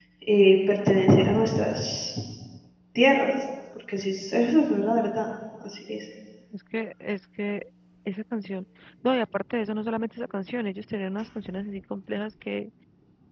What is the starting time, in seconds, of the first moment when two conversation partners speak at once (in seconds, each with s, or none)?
none